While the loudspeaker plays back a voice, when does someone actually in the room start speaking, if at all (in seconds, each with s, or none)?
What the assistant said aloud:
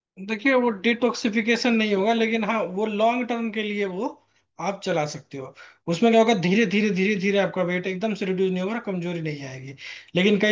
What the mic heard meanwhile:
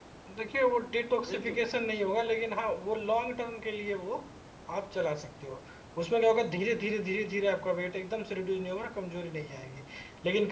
1.2 s